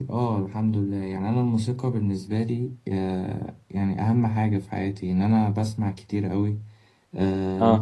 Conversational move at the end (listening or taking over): listening